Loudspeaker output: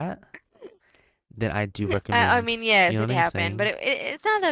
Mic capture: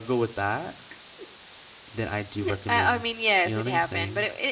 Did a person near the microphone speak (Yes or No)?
No